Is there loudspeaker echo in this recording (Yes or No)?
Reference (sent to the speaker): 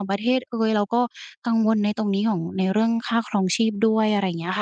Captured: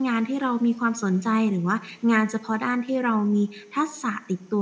No